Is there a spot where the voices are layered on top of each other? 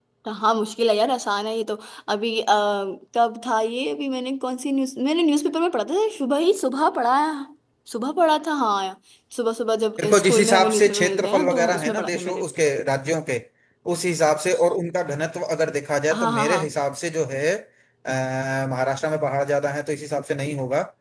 Yes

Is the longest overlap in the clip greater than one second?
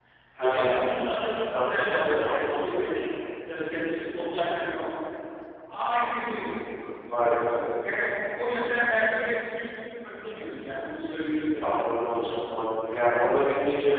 Yes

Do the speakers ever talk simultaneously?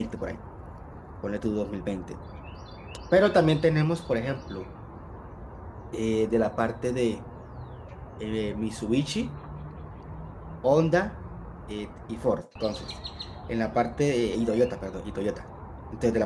No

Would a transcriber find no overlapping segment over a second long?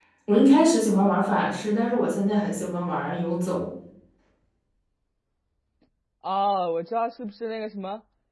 Yes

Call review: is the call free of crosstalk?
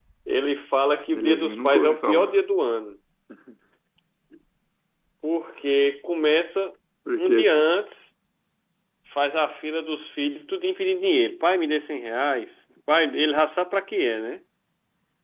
No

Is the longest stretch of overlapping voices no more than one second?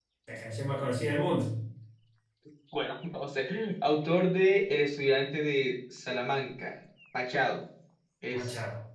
Yes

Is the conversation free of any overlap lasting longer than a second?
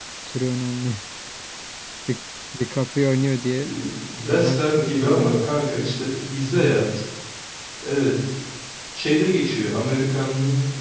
No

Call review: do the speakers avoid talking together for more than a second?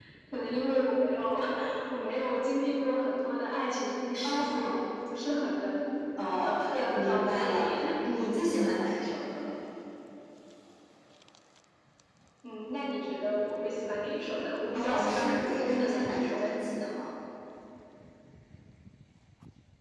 No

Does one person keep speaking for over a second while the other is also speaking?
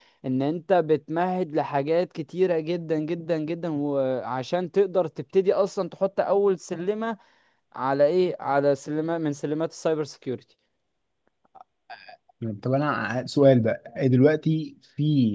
No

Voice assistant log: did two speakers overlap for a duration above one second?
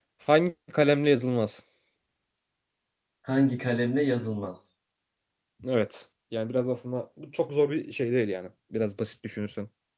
No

